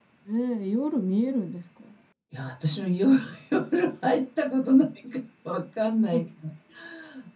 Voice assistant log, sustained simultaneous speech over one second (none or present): none